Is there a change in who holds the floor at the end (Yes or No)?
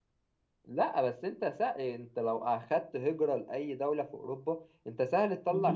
Yes